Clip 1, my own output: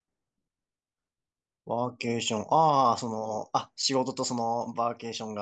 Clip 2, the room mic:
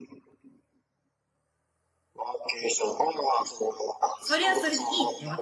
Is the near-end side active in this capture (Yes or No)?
Yes